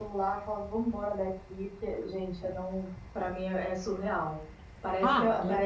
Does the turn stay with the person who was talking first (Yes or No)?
Yes